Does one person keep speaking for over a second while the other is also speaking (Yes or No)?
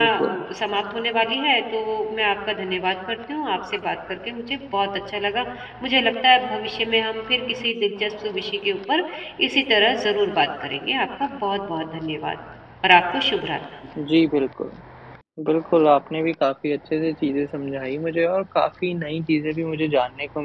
No